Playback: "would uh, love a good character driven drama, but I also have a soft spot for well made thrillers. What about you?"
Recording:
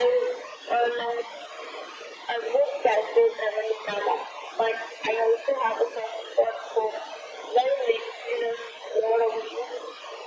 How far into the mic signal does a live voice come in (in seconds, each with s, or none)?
none